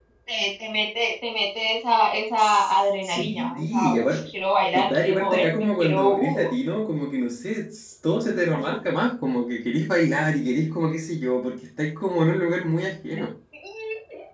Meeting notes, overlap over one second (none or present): present